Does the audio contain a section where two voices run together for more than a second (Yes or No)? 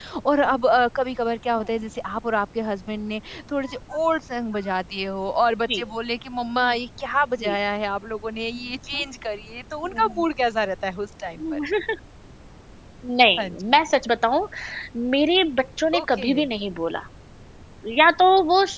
No